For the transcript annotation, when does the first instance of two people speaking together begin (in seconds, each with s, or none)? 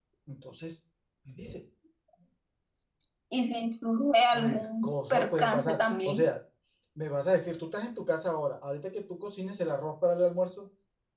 4.3 s